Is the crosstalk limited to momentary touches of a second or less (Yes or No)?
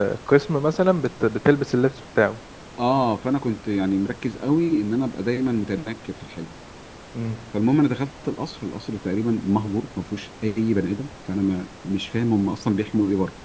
Yes